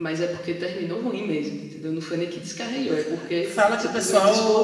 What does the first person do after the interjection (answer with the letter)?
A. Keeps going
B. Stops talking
B